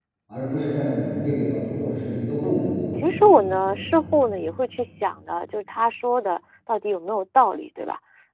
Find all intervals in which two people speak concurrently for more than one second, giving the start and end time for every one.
2.4-4.0

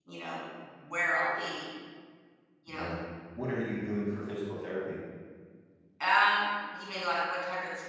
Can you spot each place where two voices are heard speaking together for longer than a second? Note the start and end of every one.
none

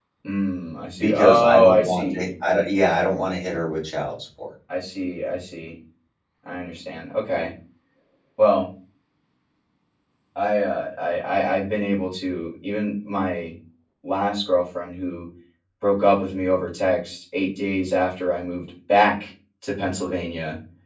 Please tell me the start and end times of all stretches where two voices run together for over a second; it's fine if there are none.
1.0-2.3

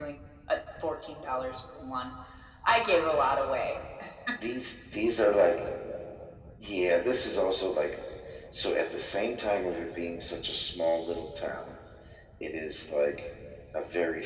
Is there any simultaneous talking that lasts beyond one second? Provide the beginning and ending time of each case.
none

